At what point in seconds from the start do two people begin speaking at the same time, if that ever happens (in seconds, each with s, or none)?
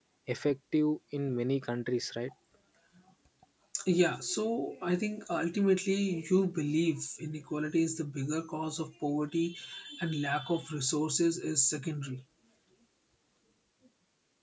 none